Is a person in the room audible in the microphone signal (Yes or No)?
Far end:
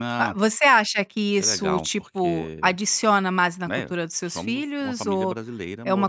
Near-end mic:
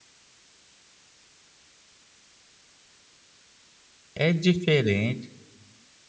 Yes